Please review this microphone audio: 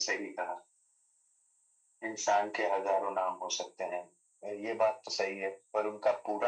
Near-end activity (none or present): none